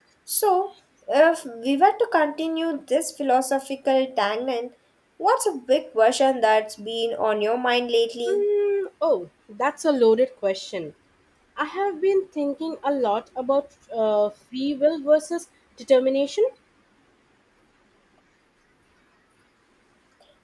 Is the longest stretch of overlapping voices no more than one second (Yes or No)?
Yes